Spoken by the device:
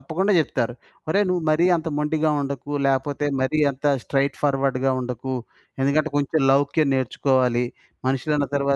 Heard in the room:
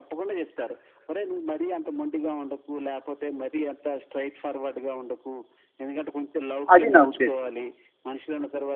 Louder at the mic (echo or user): user